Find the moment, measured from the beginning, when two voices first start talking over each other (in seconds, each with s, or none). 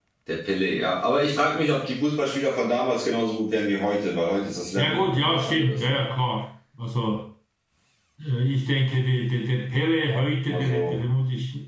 4.8 s